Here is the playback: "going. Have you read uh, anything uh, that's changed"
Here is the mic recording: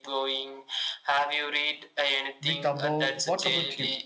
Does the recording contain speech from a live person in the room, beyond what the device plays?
Yes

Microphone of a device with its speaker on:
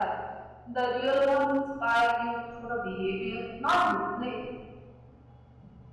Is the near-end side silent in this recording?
No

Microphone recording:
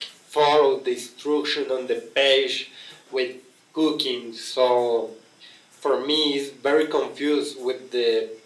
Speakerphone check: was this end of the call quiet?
Yes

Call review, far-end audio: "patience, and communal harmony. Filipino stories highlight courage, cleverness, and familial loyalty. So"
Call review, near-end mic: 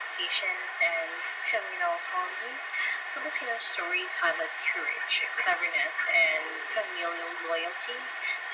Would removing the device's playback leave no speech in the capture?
Yes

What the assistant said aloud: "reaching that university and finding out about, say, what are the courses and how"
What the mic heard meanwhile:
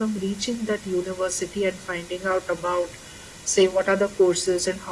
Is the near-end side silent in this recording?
Yes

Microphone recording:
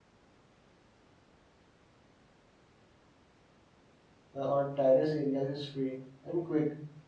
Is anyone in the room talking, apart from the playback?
Yes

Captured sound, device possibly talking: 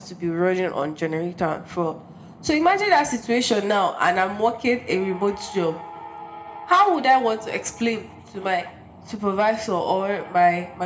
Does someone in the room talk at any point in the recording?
No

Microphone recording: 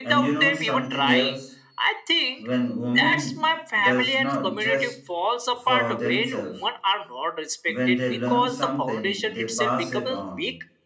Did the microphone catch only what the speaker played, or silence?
No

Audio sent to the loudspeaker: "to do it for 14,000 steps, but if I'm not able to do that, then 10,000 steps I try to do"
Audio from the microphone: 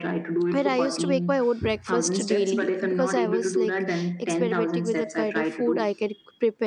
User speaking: Yes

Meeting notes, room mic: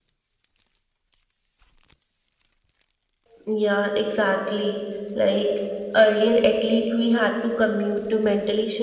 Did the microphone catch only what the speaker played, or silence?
Yes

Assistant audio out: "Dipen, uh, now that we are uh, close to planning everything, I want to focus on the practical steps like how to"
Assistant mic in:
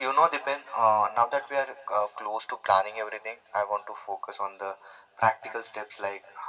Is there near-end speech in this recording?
No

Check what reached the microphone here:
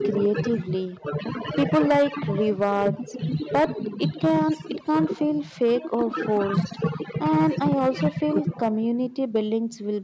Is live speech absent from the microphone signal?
No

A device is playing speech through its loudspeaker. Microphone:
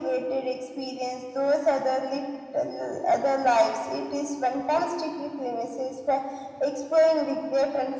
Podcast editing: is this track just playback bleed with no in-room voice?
Yes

